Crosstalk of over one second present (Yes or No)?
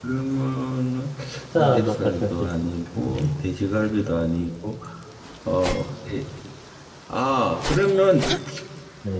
Yes